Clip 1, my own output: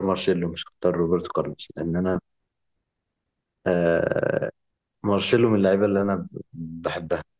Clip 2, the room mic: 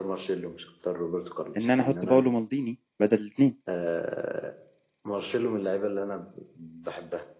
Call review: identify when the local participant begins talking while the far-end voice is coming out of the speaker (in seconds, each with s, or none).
1.6 s